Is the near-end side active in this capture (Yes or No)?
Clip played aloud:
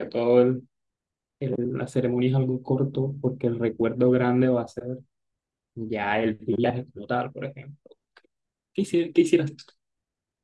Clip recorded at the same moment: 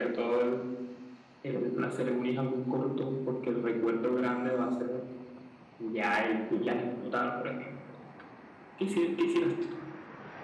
No